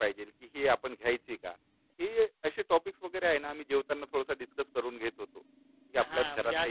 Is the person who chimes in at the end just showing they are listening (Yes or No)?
No